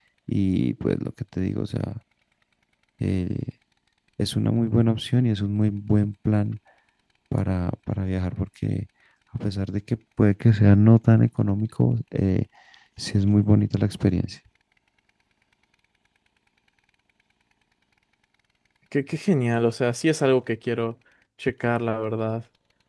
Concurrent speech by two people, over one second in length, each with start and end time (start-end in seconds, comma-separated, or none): none